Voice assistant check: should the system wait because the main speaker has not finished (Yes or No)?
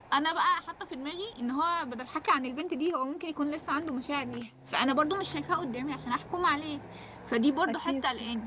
Yes